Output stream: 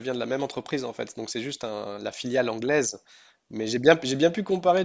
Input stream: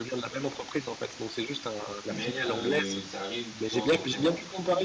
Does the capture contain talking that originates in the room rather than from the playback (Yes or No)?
Yes